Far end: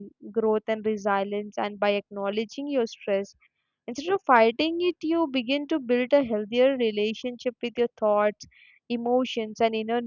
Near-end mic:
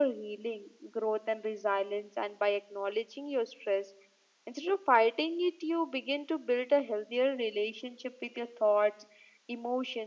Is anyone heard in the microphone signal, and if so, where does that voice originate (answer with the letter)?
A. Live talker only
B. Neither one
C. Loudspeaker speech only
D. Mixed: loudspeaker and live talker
C